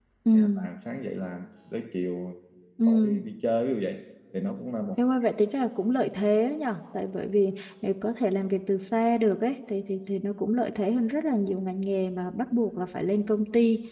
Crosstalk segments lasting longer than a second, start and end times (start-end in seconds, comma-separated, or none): none